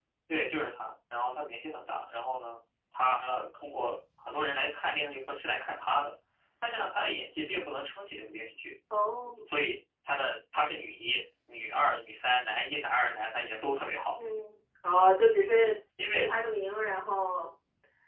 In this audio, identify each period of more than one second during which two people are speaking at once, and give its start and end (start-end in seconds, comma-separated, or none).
none